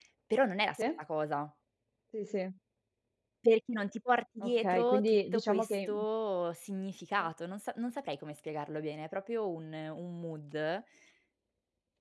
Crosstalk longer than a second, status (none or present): present